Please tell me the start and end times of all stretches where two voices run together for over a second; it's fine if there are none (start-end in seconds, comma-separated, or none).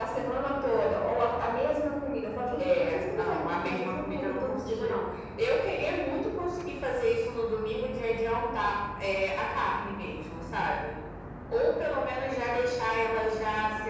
2.7-5.0